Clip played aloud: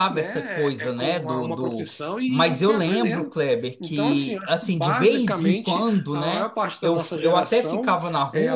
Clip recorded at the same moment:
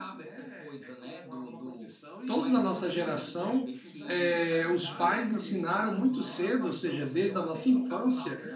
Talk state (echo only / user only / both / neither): both